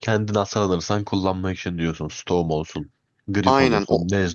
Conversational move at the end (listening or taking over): taking over